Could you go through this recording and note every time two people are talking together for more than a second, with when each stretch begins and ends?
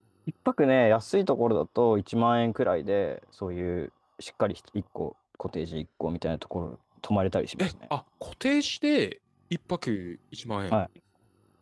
none

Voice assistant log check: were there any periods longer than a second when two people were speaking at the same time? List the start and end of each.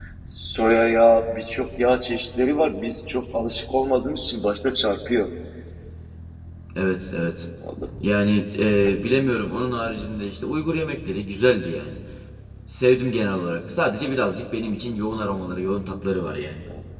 none

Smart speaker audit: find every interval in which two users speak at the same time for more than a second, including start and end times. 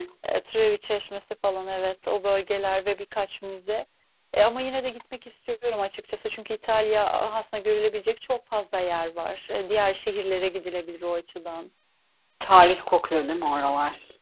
none

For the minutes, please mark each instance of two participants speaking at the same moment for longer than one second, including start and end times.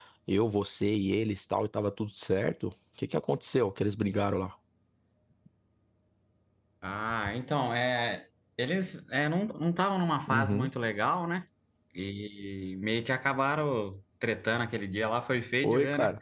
none

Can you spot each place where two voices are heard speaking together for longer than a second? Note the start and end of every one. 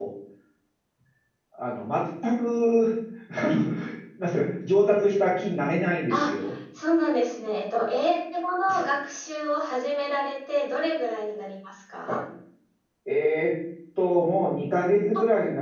none

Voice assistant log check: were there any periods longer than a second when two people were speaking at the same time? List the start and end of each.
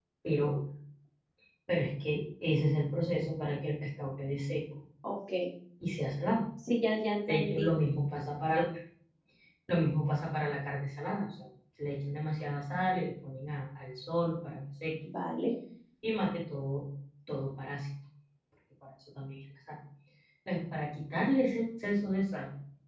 none

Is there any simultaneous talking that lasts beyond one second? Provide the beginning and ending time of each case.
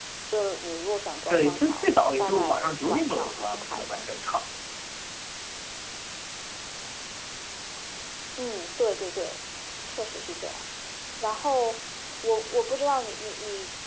1.3-4.1

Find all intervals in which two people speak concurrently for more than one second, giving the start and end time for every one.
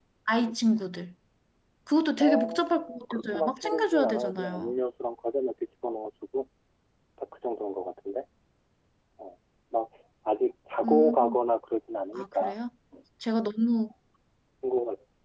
2.2-4.7

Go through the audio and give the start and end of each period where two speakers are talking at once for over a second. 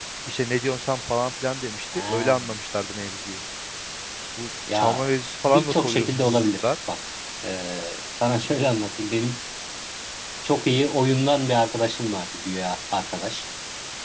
5.5-6.7

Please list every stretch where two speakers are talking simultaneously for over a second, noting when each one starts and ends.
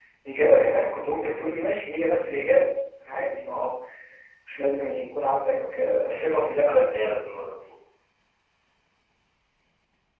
5.5-6.8

